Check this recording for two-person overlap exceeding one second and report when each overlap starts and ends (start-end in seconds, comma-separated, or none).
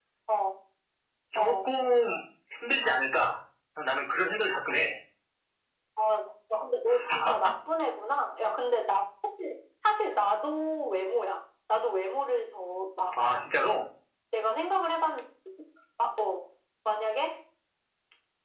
none